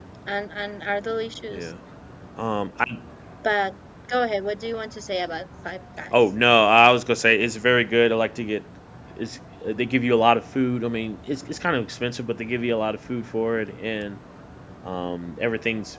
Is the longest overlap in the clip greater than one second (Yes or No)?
No